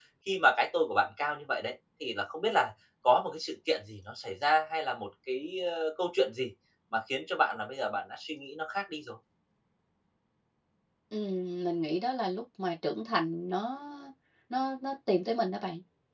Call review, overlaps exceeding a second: none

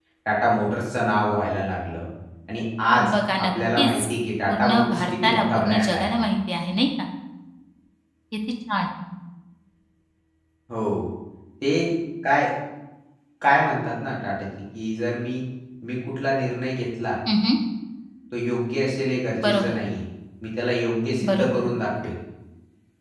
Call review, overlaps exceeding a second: present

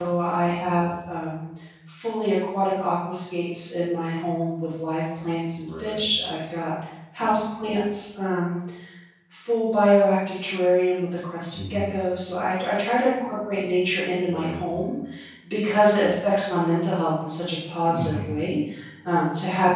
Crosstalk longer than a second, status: none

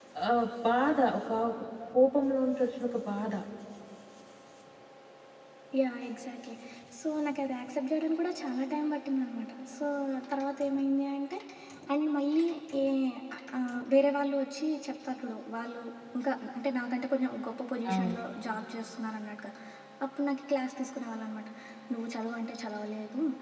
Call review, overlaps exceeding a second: none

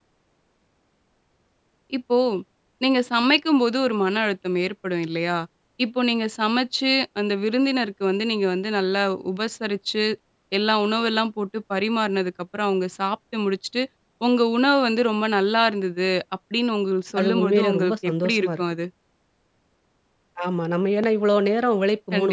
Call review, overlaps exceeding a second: present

